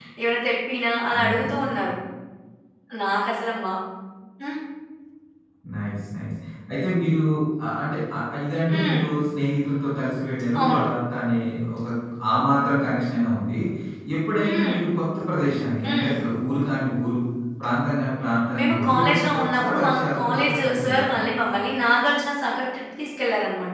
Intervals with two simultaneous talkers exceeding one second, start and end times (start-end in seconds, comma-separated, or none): 18.6-21.2